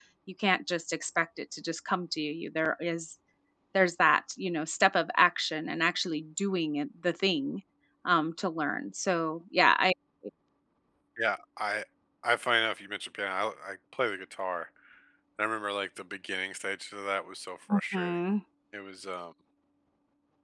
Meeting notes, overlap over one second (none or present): none